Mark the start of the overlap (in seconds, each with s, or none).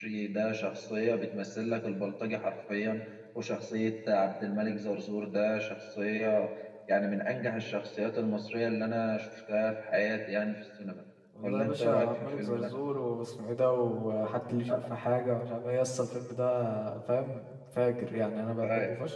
11.4 s